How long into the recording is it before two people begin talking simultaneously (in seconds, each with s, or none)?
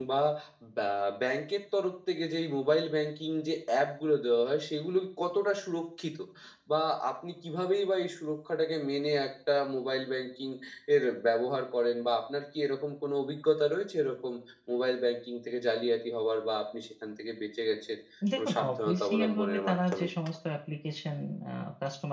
18.4 s